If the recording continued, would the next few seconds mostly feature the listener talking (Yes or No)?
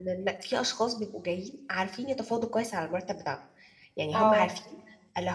No